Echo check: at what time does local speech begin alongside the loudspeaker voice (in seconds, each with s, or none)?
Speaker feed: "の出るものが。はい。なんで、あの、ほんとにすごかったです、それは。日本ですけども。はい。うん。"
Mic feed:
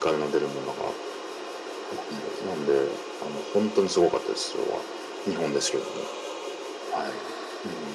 none